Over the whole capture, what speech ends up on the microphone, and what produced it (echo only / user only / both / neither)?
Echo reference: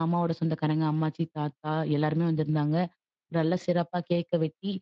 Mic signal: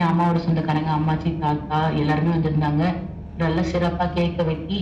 echo only